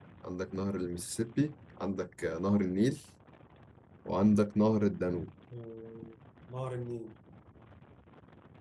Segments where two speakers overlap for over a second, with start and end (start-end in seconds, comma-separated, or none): none